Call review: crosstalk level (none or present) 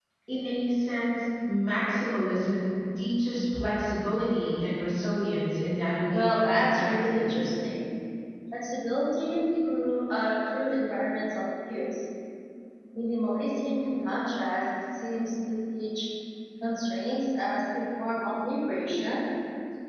present